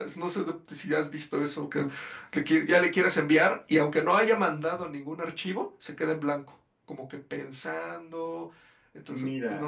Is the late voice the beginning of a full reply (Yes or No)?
Yes